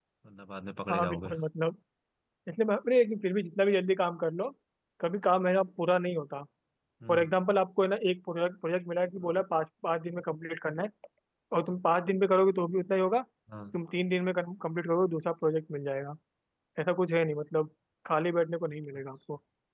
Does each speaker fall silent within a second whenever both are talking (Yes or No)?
Yes